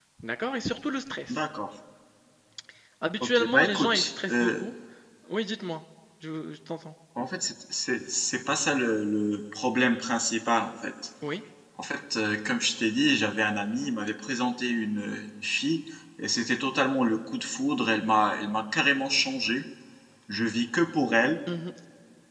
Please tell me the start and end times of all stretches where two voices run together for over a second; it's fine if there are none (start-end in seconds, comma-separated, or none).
3.2-4.6